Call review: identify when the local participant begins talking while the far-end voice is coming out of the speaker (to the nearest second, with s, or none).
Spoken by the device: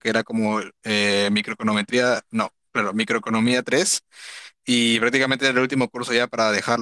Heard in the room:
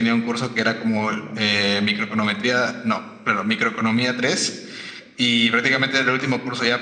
none